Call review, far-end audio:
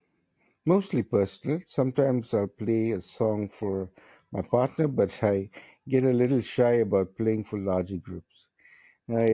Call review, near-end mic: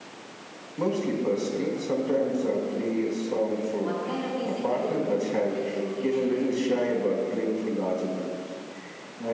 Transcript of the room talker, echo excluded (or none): What kind of music do you re- do you usually play?